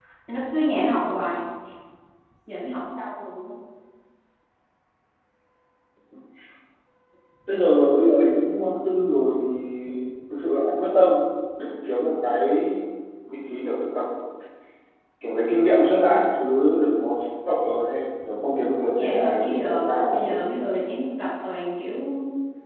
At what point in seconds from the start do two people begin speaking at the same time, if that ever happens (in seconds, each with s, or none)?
18.8 s